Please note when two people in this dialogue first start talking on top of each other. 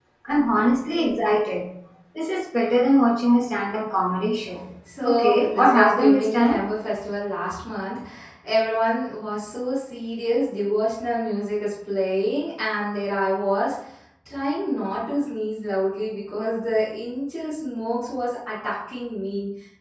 5 s

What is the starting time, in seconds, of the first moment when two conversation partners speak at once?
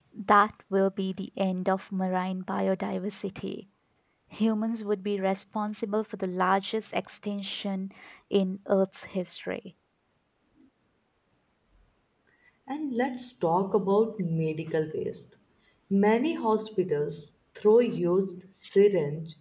none

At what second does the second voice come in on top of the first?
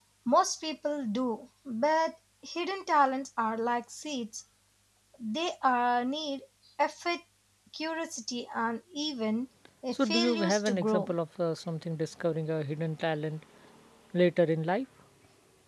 10 s

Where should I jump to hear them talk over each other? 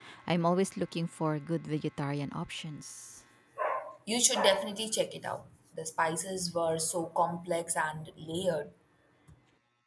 none

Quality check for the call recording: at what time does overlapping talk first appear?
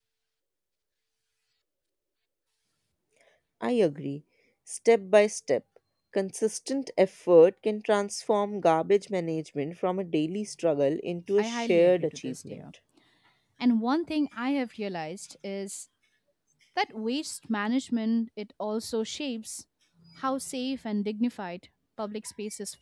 11 s

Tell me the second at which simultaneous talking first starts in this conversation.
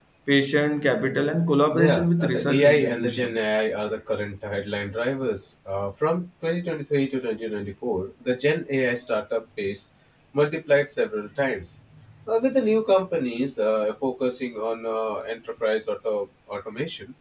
2 s

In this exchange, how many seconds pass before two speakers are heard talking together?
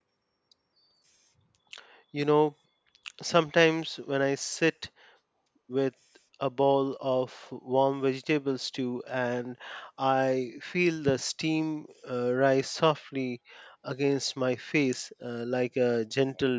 none

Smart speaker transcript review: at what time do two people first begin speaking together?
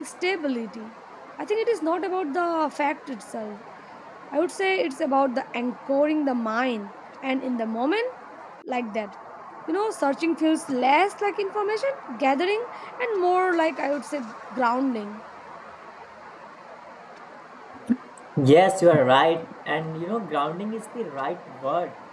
none

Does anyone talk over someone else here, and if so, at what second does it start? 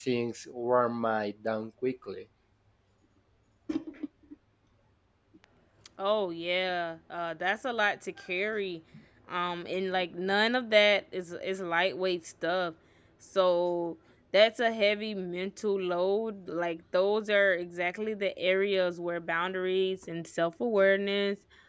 none

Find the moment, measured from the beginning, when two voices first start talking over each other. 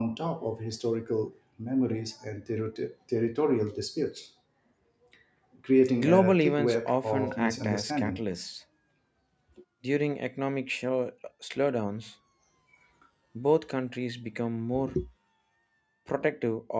6 s

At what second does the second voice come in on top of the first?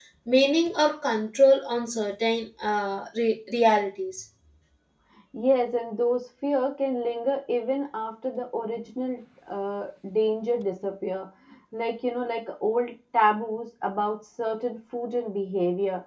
none

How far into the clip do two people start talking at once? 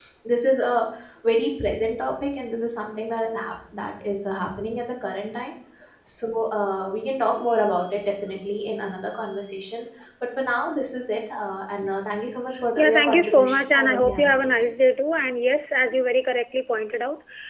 13 s

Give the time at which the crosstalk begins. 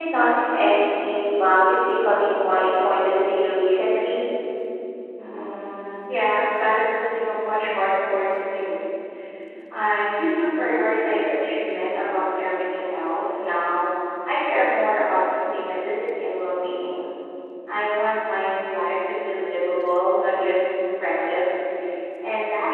none

